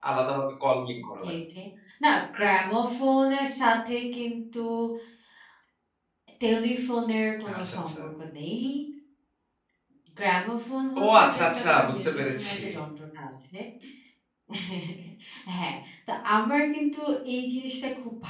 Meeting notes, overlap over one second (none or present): present